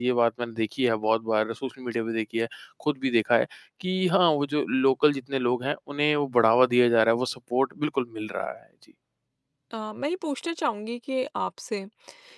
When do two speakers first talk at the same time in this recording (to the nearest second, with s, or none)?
none